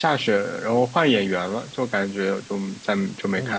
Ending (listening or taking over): taking over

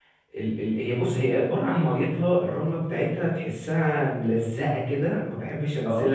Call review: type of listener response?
listening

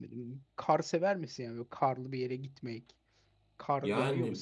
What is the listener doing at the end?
taking over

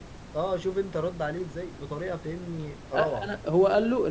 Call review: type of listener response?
taking over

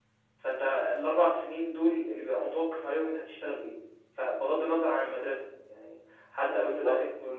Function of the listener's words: listening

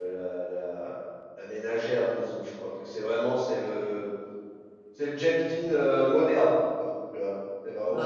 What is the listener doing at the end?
listening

